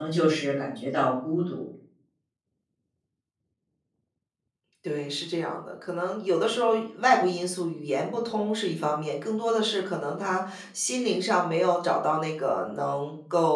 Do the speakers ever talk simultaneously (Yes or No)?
No